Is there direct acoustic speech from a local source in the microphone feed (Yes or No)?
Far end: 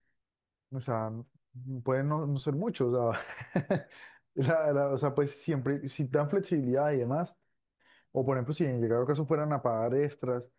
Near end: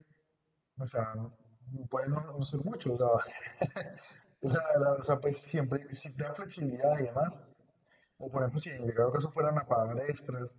No